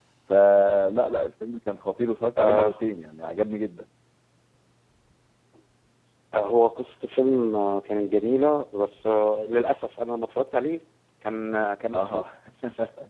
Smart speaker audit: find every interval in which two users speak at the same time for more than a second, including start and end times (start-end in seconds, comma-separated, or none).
none